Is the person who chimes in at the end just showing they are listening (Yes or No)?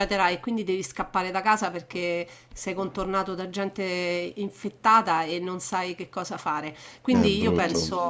Yes